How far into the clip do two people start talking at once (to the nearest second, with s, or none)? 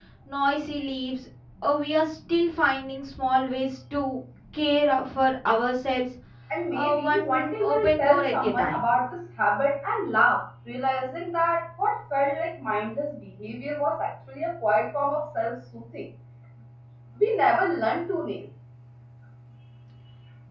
7 s